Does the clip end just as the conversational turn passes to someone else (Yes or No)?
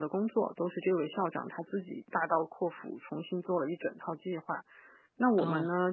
No